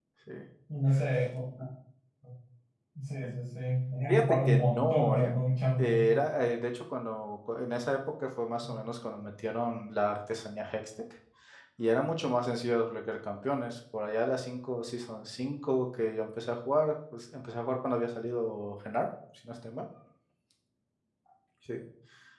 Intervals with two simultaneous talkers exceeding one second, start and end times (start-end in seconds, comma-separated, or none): 4.1-5.3